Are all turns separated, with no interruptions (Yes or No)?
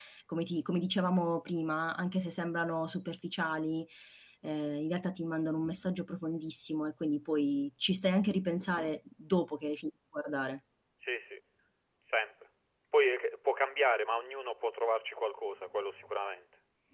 Yes